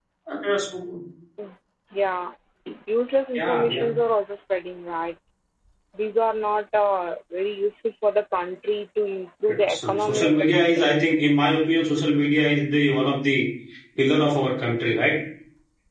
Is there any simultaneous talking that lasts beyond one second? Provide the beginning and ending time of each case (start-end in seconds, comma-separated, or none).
9.7-10.9